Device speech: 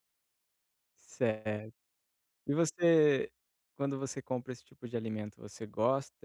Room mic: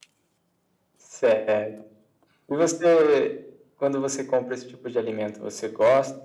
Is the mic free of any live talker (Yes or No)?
Yes